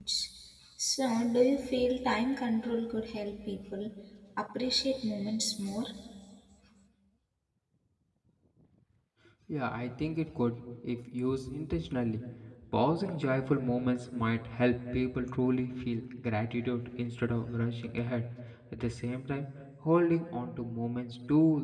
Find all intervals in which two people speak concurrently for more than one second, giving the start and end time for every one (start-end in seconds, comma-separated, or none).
none